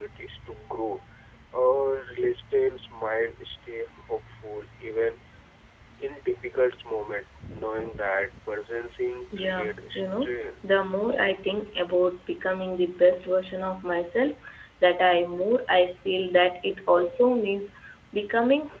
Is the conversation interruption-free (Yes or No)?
No